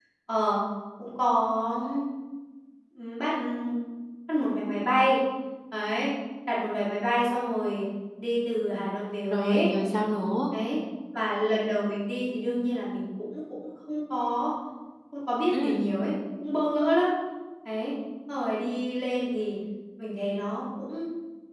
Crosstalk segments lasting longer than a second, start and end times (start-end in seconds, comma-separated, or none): none